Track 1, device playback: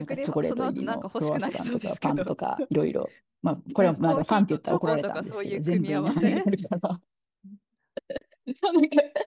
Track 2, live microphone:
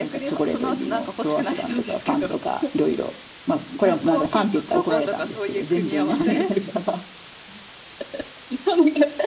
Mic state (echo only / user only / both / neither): echo only